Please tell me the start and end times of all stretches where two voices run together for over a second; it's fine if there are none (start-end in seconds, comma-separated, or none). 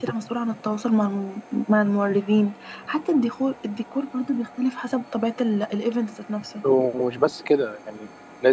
none